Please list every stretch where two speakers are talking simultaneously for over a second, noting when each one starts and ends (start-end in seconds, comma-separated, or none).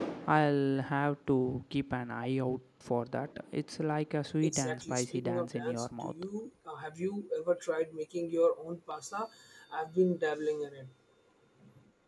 4.4-6.1